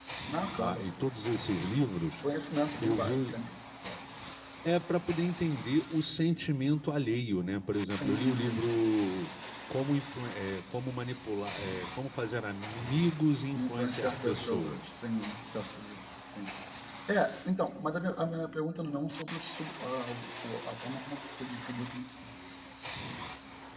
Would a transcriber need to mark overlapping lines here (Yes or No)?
Yes